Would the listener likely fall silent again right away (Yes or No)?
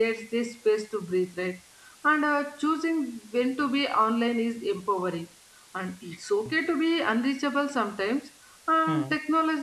Yes